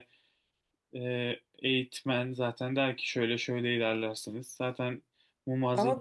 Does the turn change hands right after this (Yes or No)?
Yes